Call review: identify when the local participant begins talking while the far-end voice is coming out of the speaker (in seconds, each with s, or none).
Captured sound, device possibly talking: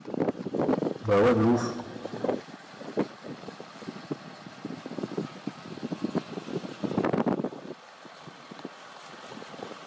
1.0 s